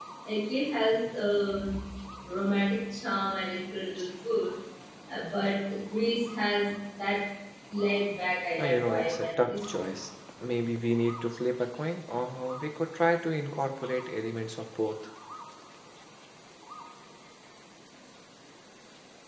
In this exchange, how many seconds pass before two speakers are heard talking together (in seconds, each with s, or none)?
8.6 s